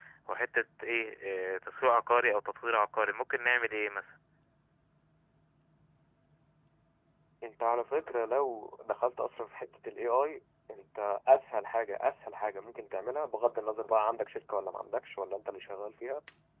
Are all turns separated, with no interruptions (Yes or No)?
Yes